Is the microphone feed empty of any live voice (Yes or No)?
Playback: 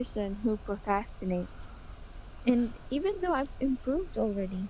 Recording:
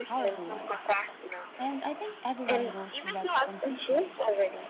No